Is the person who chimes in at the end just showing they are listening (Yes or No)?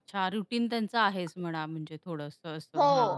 No